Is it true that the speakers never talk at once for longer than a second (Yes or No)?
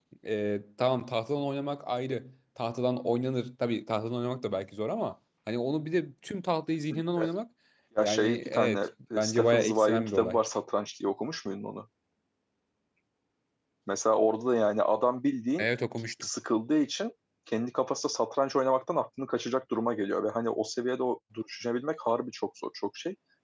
No